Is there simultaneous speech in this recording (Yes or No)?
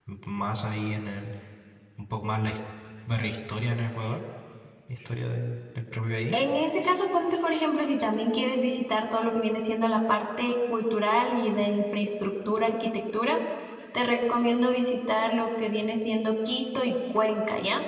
No